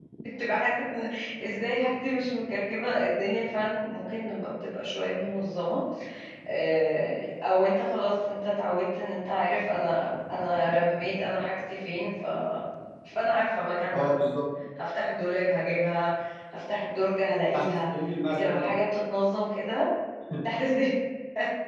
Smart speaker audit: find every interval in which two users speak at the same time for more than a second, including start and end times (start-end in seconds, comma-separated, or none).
none